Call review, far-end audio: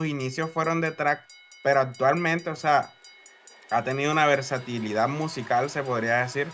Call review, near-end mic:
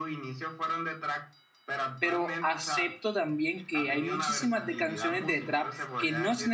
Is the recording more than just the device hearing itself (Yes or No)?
Yes